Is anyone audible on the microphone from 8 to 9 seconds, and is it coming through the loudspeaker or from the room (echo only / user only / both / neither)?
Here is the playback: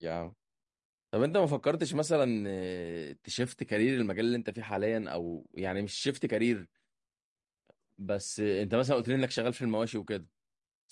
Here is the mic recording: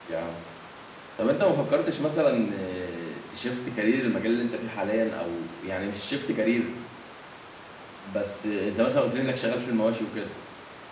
echo only